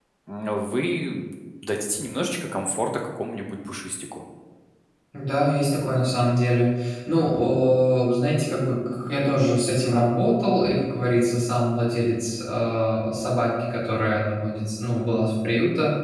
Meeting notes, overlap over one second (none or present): none